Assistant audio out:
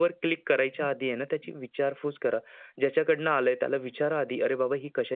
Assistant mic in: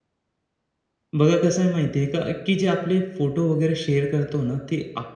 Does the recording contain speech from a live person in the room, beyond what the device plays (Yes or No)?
Yes